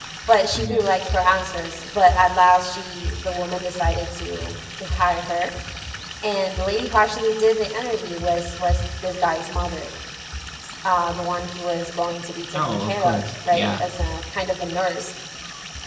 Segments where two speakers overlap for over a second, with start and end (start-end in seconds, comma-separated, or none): 12.5-13.8